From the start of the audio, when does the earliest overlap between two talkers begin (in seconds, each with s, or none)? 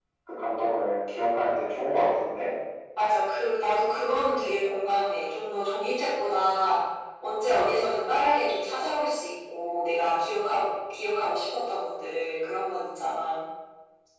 none